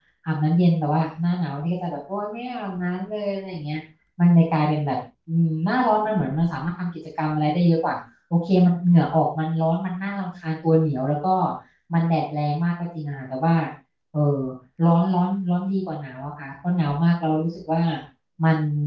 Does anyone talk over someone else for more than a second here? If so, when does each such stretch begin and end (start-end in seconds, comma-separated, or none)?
none